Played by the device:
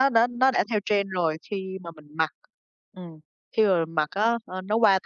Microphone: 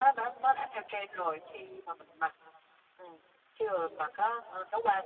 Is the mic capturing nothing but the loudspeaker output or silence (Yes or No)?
Yes